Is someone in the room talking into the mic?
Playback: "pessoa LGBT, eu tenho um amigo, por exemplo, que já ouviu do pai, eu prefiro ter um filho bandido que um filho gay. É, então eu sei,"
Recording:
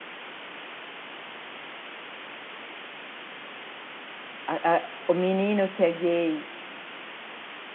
Yes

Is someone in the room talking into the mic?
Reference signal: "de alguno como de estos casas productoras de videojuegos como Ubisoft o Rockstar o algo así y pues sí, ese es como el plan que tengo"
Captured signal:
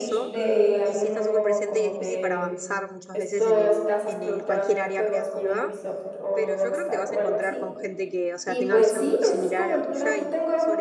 Yes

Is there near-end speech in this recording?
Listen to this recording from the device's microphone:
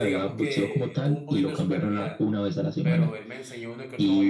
Yes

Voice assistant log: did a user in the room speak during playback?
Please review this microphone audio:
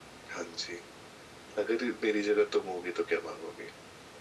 No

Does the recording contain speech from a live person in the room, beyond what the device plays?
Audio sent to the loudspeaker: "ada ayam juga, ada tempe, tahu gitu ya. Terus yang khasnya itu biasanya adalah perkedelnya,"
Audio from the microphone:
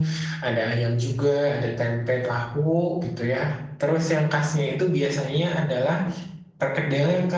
No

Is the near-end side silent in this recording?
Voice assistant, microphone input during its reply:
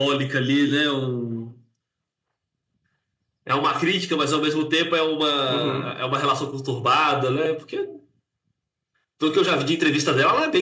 No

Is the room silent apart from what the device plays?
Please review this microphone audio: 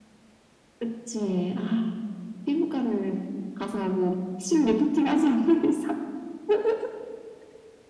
Yes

